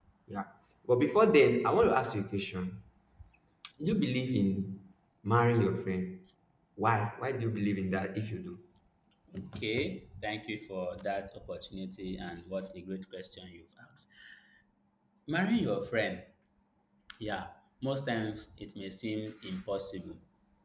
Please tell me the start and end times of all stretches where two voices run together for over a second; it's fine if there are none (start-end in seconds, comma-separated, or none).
none